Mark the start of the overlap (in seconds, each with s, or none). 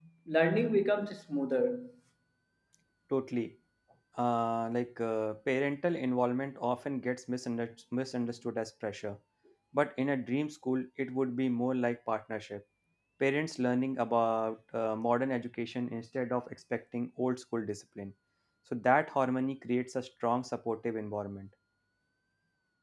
none